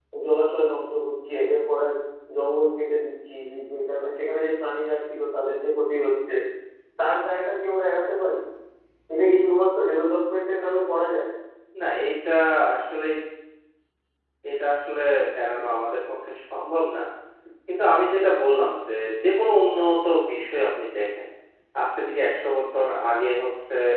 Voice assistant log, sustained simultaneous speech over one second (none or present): none